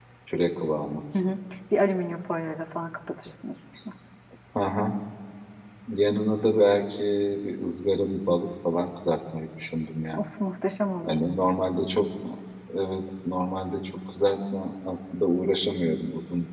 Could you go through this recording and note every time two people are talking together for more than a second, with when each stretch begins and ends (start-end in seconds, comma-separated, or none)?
none